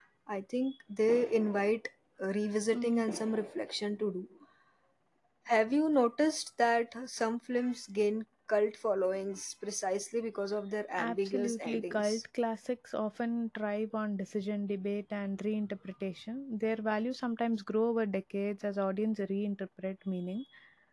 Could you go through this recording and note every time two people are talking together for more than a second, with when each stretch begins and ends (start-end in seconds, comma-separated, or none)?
11.0-12.2